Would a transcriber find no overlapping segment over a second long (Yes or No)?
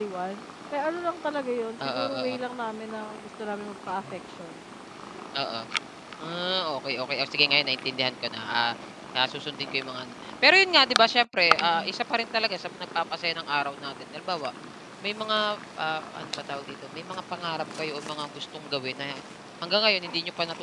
Yes